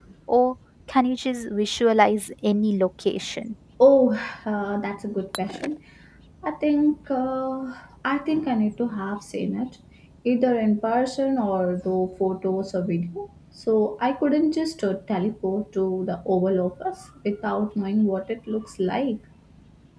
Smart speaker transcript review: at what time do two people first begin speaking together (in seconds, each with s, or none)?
none